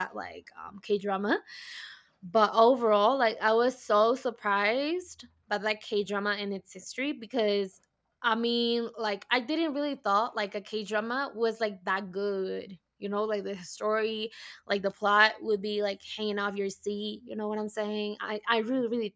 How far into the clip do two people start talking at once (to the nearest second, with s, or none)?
none